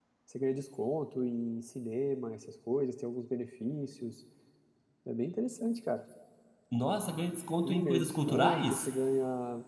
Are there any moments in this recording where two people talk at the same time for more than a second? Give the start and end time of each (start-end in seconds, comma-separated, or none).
7.6-8.9